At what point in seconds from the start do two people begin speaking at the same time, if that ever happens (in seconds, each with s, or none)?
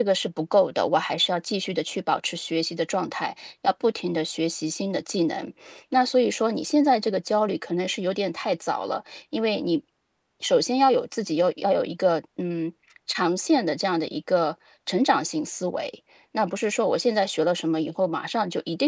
none